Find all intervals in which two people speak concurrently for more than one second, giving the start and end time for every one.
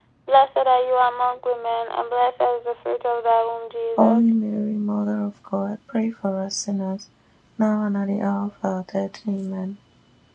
none

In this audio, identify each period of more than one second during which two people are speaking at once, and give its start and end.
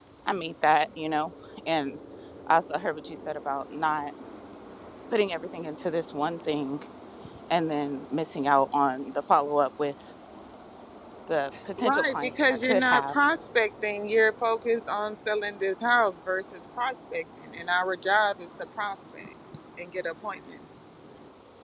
11.8-13.1

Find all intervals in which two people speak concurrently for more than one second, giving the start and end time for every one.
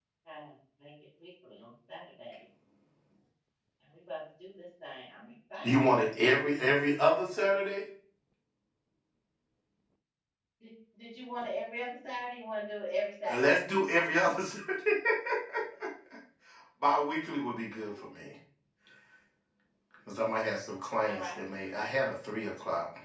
none

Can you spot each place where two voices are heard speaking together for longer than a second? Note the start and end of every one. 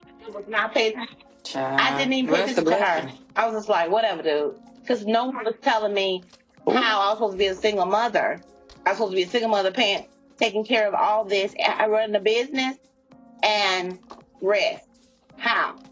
1.8-3.0

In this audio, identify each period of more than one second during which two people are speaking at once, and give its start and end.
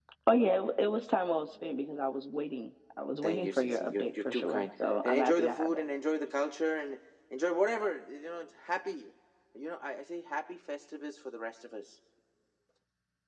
3.2-5.8

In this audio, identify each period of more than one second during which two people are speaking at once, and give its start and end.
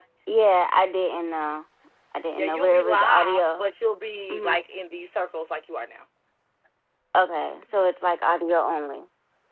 2.4-3.6

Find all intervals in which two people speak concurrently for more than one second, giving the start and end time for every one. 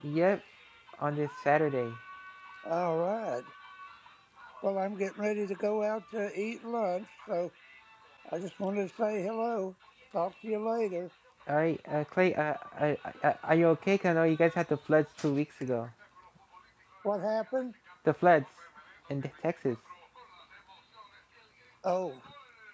none

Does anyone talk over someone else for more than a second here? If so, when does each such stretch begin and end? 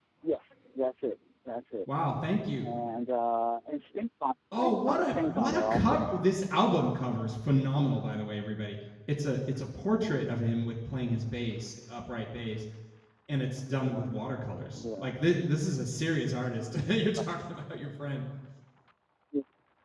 4.6-6.1

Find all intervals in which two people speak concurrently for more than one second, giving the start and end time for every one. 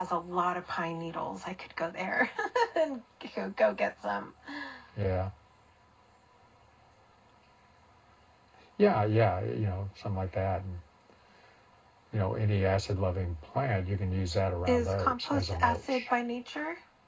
14.7-16.0

